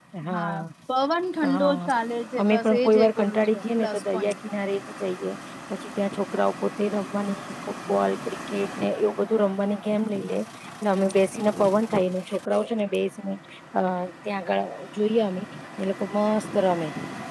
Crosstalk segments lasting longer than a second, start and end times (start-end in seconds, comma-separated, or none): 2.4-4.3